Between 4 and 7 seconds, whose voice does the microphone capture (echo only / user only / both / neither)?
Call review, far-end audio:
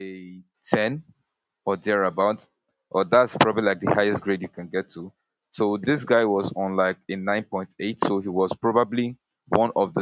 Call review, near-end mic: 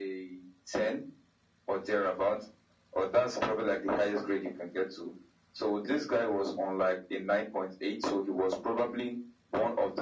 echo only